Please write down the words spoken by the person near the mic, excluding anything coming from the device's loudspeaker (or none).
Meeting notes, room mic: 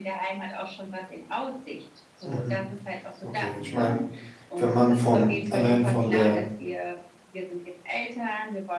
Mhm, okay. Ich meine, wenn man von allein von der,